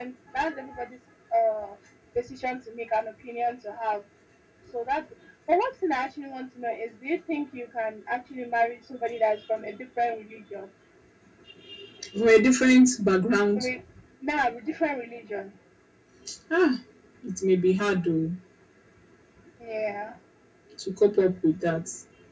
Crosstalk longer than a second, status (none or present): none